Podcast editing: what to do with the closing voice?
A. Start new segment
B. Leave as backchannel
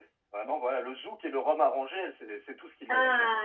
A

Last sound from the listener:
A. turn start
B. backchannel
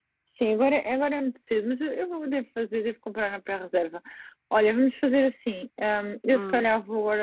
B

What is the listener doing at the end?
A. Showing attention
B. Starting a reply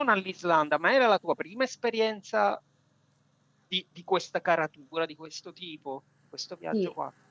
B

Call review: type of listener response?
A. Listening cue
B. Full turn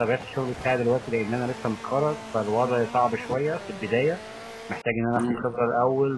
A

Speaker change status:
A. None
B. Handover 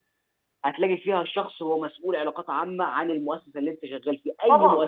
B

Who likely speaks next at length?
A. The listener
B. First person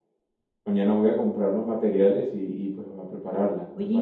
A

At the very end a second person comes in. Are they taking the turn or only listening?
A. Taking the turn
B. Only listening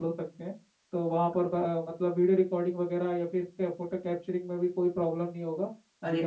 A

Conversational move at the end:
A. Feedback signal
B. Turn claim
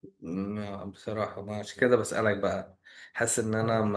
A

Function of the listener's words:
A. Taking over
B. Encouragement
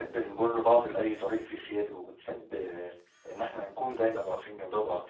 B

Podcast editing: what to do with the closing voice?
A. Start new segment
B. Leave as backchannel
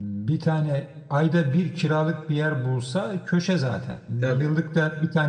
B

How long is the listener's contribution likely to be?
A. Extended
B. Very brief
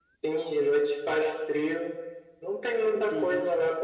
B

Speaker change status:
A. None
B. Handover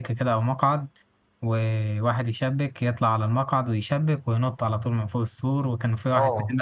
B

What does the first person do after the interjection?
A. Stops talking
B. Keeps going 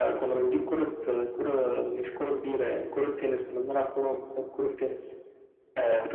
B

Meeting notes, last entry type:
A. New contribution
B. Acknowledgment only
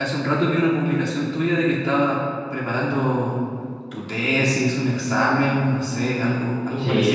A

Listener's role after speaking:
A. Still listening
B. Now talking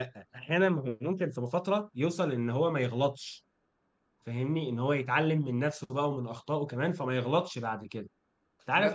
A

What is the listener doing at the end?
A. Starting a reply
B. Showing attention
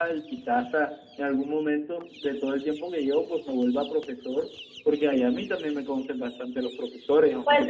A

